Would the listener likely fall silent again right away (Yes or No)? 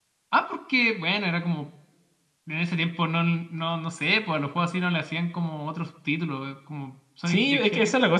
No